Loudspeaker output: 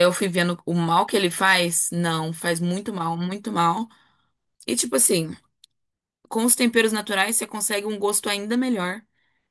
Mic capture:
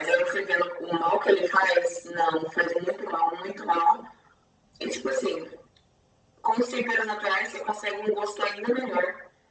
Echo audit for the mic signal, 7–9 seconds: echo only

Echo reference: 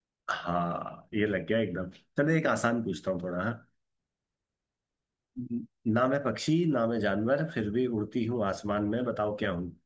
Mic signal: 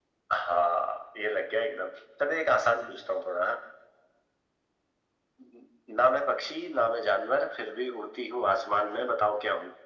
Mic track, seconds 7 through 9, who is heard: echo only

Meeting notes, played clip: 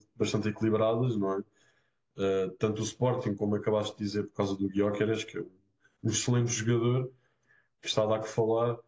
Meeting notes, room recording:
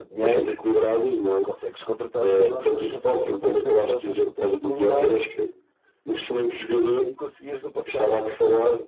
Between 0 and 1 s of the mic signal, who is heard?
both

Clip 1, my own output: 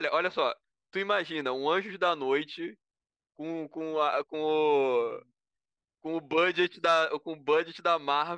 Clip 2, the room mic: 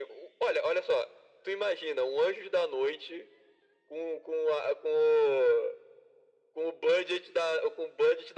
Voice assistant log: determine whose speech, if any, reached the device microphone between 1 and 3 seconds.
echo only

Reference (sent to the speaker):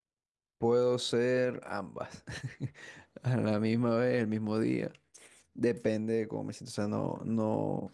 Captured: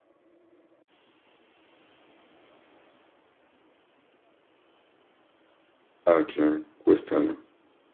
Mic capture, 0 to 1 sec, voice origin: neither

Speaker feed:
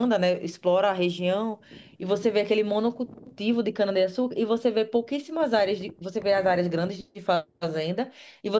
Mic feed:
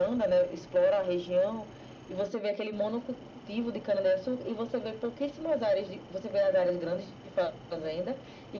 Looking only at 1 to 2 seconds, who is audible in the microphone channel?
echo only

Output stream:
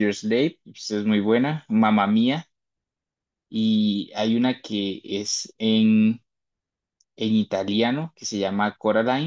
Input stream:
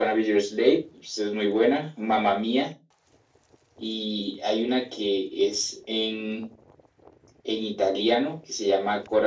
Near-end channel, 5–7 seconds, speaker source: echo only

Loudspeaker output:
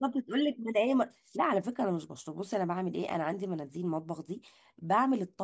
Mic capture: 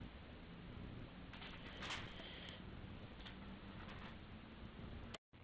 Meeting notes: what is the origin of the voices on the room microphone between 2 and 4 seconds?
neither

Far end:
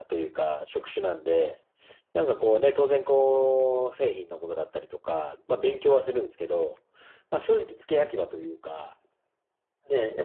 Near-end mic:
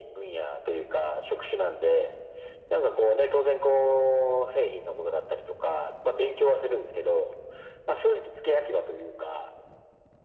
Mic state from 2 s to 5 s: echo only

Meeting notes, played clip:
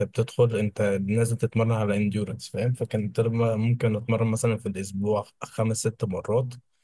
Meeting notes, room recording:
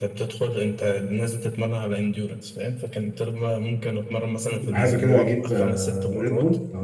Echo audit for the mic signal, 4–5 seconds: both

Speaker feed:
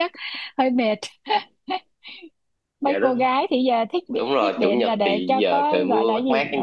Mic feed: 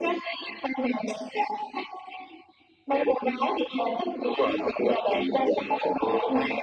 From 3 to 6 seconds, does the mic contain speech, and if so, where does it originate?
echo only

